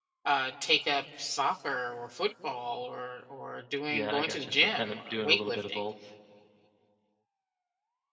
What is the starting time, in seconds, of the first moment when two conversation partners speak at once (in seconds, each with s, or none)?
3.9 s